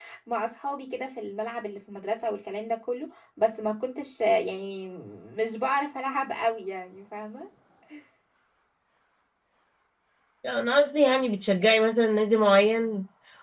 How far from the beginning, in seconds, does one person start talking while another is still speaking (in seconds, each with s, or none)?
none